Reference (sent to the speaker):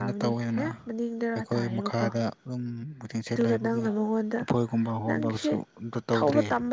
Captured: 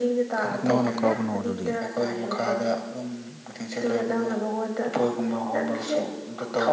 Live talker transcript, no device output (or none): ꯀꯅꯥꯅ ꯀꯥꯕꯅ ꯑꯗꯨꯗꯤ